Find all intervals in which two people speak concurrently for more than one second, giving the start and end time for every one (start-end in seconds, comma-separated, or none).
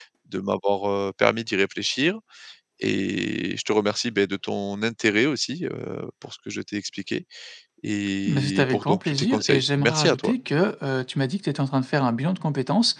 8.2-10.4